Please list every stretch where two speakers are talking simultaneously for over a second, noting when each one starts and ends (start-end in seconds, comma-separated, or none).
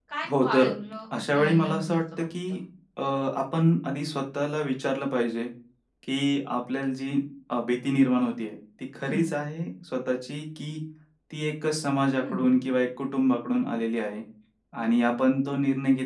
1.1-2.6